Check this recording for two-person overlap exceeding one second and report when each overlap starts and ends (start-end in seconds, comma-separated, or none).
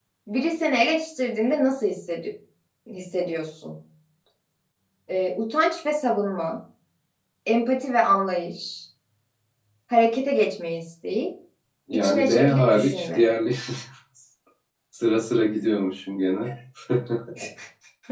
11.9-13.2